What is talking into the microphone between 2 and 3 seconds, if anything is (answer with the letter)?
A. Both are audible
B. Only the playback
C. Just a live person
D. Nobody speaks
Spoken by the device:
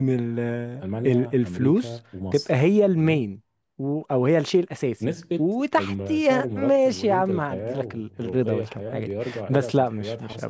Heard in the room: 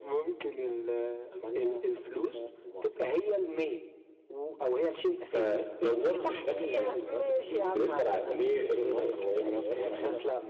B